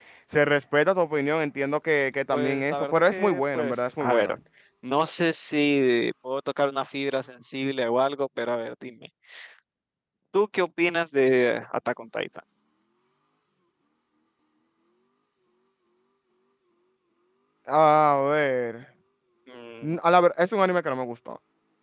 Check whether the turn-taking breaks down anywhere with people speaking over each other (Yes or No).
Yes